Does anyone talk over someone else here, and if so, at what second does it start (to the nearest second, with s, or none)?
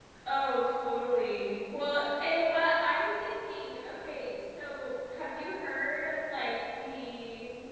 none